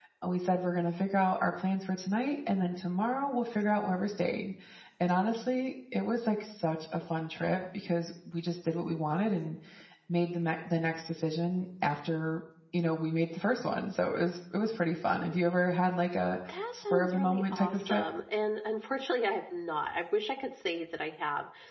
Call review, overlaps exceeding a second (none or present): present